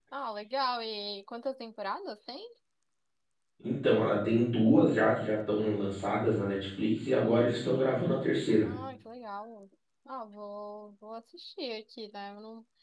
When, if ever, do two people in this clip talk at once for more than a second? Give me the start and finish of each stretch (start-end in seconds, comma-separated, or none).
none